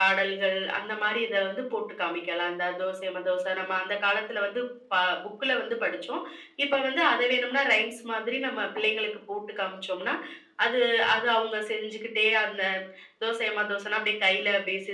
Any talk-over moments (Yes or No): No